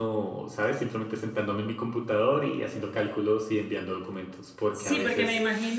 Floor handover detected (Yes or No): Yes